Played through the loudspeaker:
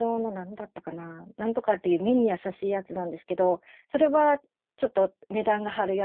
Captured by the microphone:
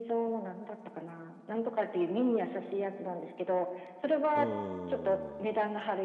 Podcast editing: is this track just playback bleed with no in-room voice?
No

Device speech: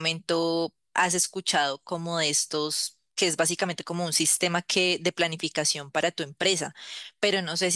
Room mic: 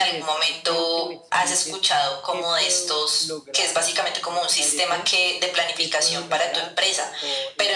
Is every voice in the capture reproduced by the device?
No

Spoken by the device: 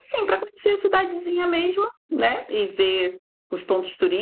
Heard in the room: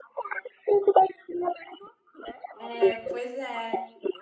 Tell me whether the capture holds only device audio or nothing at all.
No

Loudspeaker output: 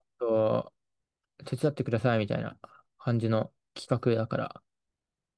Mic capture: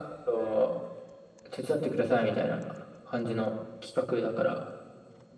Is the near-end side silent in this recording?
Yes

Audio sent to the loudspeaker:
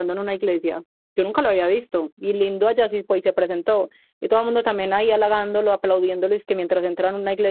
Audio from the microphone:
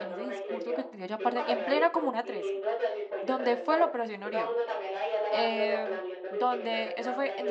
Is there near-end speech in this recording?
Yes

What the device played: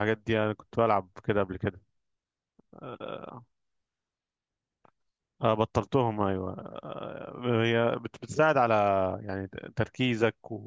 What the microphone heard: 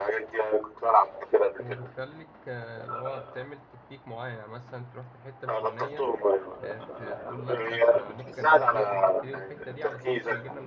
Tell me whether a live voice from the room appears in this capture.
Yes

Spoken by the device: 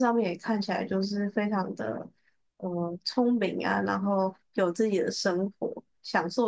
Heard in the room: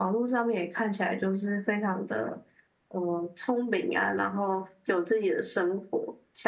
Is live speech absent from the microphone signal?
Yes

